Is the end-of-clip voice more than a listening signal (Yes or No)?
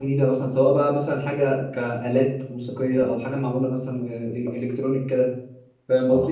Yes